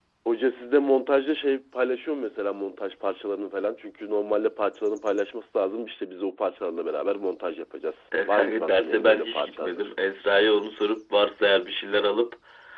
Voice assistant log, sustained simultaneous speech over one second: present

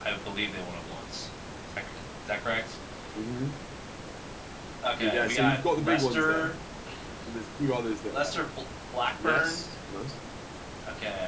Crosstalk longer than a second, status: present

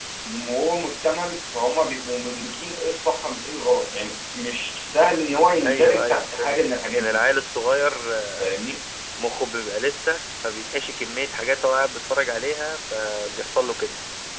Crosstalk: present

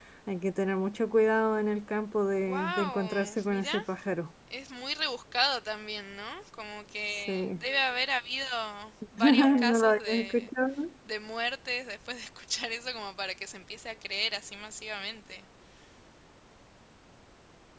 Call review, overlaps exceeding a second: present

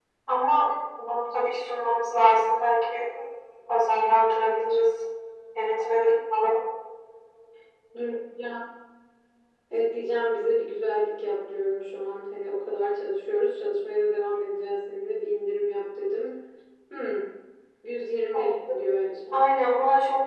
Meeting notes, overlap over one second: none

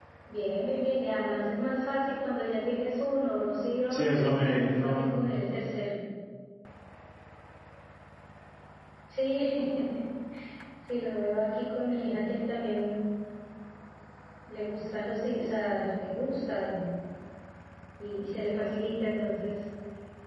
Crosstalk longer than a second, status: present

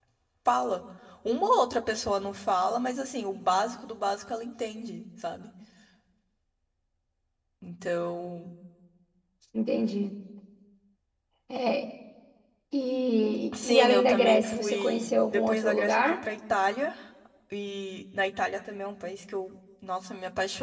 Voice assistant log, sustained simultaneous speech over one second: present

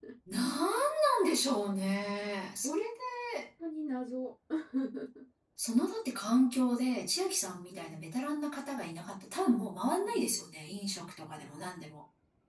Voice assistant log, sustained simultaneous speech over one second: none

